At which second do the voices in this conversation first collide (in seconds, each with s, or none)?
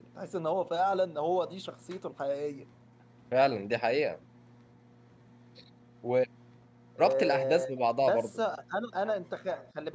7.0 s